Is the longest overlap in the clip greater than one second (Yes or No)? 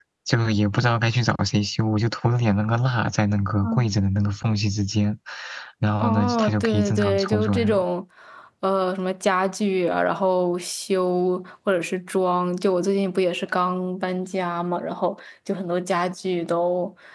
Yes